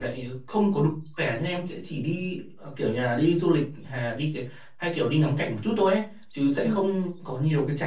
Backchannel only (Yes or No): Yes